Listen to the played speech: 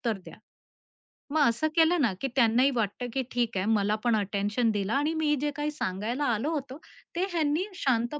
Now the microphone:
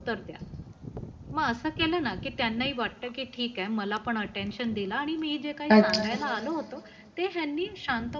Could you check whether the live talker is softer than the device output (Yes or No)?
No